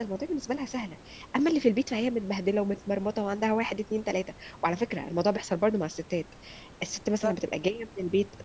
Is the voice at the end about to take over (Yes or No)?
No